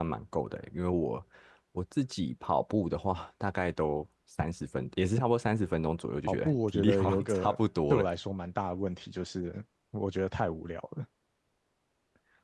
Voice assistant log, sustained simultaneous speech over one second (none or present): present